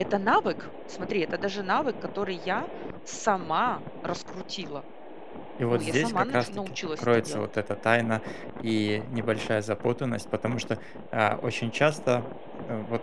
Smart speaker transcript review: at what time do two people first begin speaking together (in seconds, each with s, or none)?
5.7 s